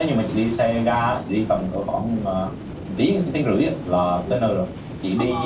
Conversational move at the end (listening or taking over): listening